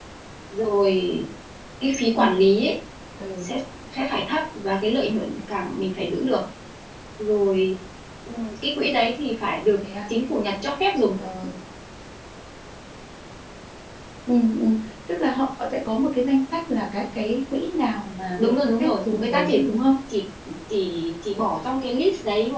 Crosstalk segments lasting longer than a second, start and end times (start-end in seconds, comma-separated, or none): 18.4-19.6